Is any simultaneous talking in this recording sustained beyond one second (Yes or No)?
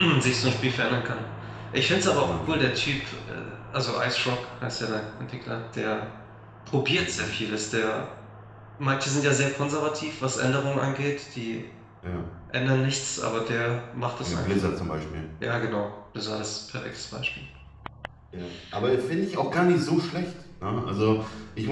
No